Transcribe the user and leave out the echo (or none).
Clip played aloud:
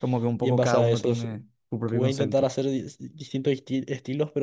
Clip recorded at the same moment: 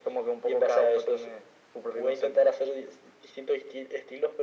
none